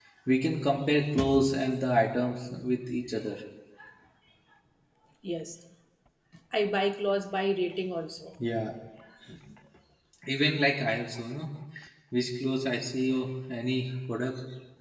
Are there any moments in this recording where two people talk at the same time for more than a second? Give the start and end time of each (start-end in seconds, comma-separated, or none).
none